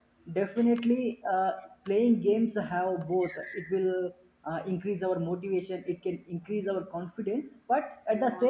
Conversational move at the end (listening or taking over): listening